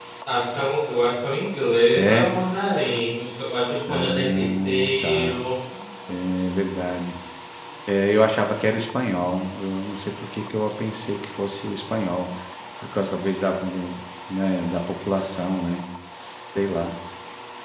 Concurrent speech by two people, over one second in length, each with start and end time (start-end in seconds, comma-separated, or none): 3.9-5.4